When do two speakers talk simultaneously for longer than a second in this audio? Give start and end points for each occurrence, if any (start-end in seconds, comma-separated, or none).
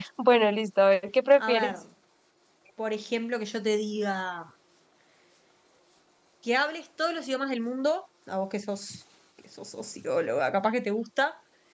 none